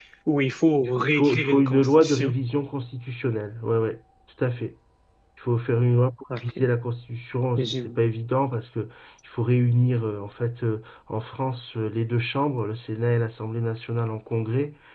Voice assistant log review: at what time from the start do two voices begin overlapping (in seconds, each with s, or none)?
0.8 s